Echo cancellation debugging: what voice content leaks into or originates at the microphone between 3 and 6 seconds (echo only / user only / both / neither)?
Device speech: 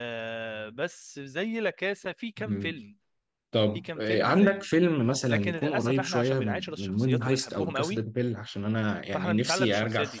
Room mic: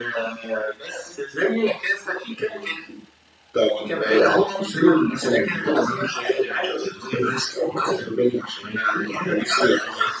echo only